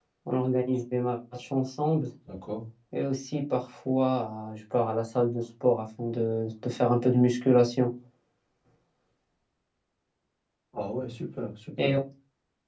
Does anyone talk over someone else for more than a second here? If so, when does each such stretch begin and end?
none

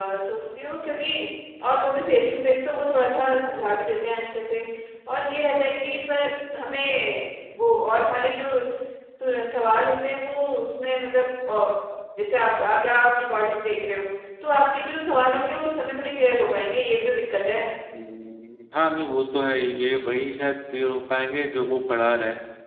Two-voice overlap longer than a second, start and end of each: none

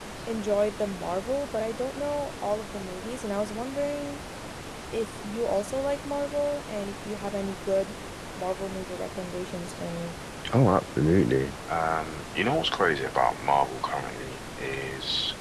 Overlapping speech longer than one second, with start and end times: none

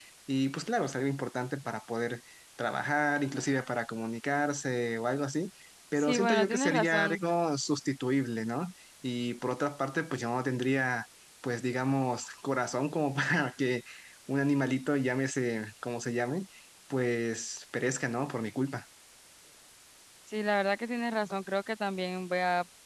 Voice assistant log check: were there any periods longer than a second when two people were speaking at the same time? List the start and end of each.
6.0-7.2

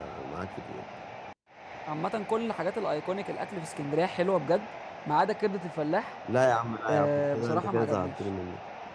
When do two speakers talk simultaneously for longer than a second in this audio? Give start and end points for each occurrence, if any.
6.9-8.2

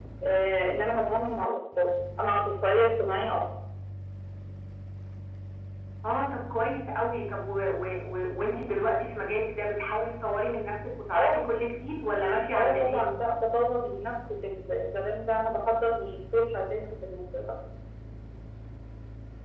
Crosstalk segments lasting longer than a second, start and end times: none

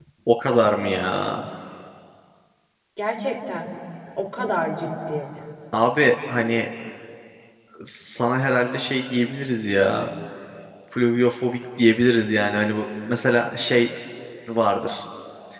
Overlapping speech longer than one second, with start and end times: none

